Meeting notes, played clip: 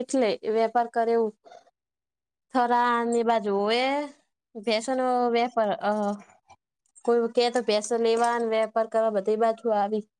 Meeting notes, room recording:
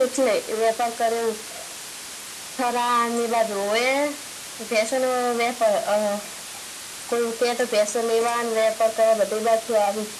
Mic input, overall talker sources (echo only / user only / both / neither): echo only